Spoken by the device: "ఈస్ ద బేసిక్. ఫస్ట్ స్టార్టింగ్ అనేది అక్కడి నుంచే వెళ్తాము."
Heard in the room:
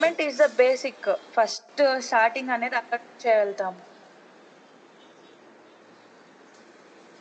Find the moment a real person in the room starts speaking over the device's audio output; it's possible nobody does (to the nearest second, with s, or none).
none